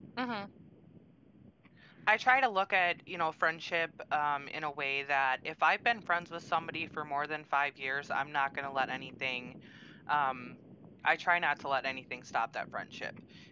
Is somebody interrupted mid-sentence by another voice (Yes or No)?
No